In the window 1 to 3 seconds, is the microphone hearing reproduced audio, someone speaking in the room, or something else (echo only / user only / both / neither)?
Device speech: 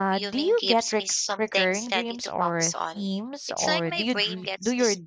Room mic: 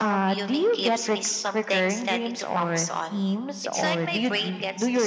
echo only